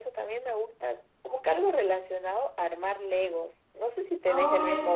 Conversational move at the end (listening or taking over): taking over